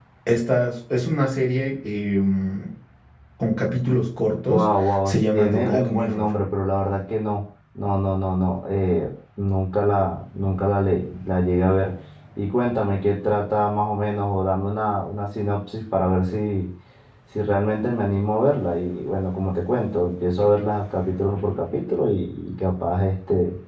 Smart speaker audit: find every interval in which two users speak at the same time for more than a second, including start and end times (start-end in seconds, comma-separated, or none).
4.5-6.2